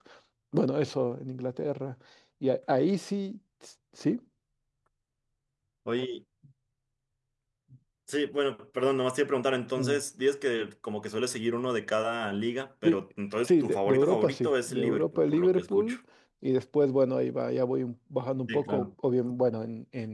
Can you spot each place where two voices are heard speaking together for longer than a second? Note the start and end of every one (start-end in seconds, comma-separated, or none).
13.5-16.0